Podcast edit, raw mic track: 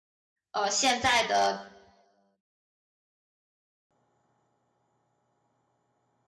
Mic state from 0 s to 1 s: user only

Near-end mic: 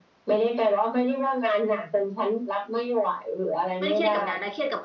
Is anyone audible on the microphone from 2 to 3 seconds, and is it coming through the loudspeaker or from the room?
echo only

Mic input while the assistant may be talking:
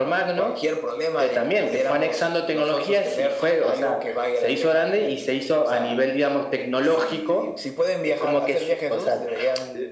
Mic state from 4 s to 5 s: echo only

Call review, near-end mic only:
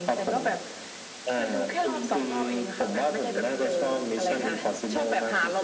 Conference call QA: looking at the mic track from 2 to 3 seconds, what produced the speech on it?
echo only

